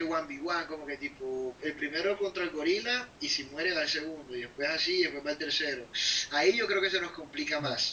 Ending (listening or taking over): taking over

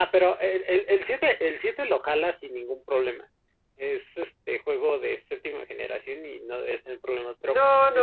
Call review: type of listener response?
taking over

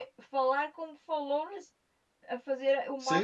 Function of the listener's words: taking over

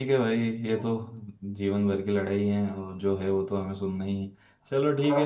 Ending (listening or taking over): listening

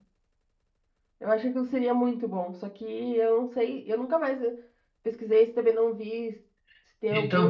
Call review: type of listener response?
taking over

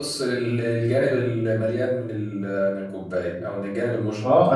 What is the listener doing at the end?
taking over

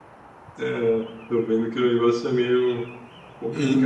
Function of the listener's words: taking over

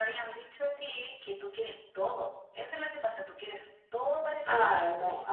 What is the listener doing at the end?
taking over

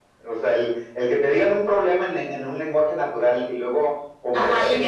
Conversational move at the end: taking over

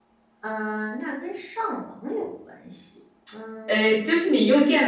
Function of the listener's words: taking over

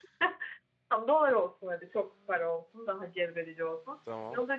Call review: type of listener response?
listening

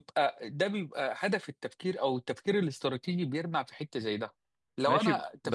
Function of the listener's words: taking over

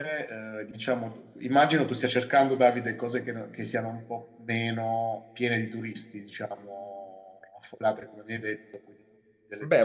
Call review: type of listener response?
taking over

